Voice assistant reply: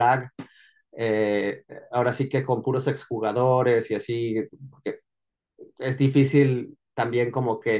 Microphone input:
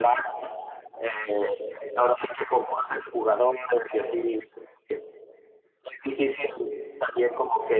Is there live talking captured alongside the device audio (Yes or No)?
No